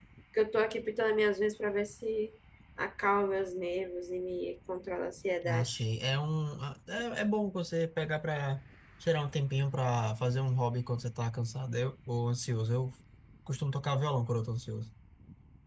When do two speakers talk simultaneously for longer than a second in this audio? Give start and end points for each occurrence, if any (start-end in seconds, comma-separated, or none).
none